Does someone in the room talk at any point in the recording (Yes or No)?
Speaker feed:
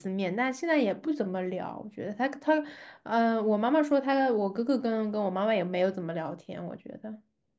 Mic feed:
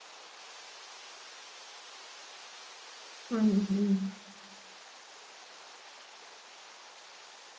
Yes